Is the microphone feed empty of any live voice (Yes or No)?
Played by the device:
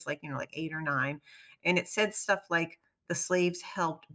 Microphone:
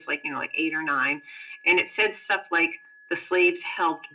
Yes